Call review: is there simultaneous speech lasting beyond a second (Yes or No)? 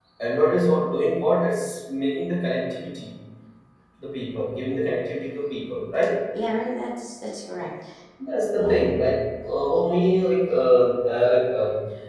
No